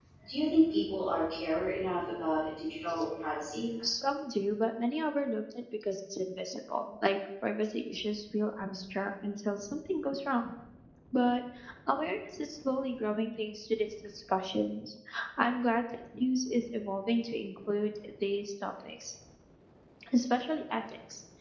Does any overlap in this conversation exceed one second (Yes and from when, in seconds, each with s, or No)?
No